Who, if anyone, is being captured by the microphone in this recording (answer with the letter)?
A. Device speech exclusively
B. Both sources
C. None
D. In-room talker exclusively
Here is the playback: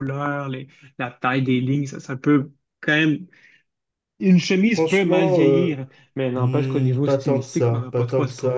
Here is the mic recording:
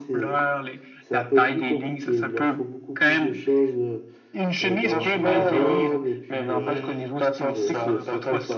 B